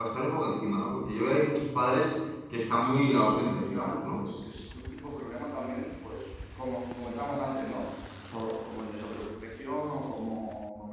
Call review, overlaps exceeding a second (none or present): present